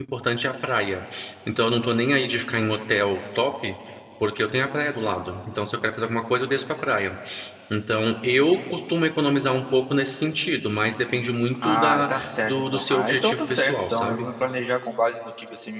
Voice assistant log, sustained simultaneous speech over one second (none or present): present